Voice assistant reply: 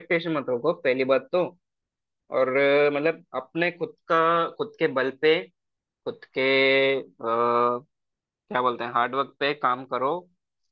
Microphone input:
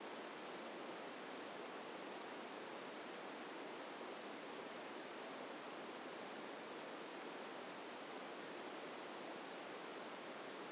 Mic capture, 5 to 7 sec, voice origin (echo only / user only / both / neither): neither